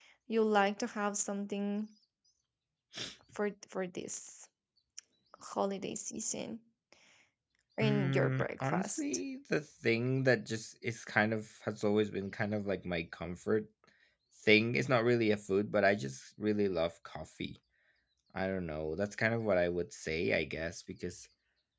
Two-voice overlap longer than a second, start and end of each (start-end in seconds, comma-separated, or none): 7.8-9.0